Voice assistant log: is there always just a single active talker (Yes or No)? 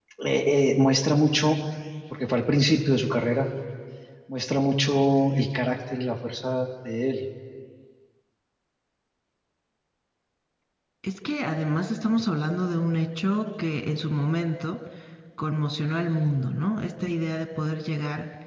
Yes